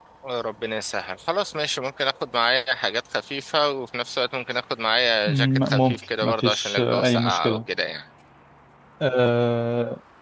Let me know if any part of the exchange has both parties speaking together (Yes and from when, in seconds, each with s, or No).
Yes, from 5.3 s